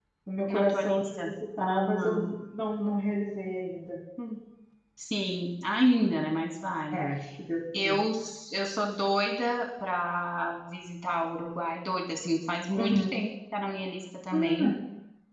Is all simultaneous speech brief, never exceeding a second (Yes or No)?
No